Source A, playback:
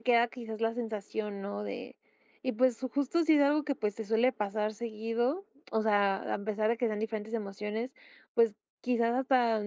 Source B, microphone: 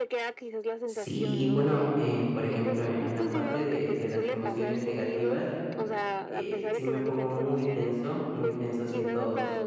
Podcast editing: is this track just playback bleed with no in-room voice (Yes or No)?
No